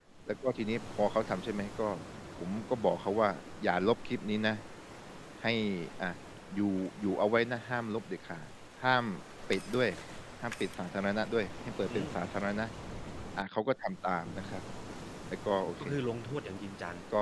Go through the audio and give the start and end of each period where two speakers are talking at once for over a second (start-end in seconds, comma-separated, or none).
none